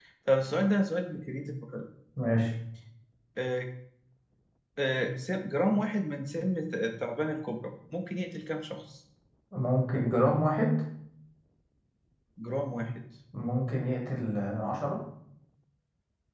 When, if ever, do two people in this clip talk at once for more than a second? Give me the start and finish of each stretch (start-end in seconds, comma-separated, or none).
none